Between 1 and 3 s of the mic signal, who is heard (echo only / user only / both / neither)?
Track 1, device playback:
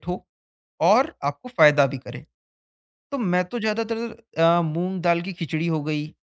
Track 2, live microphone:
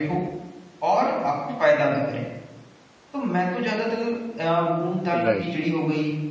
echo only